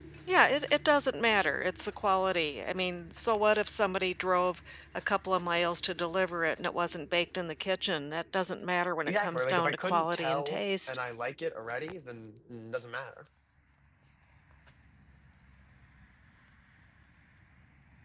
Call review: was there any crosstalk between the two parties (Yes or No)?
Yes